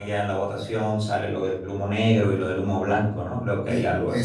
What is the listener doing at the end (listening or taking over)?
taking over